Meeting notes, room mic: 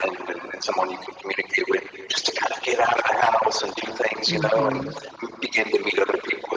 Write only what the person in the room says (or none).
Mhm.